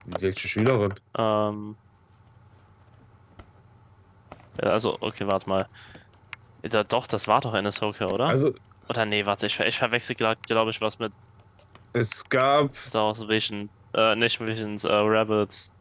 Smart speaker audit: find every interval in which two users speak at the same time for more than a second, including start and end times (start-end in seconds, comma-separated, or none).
none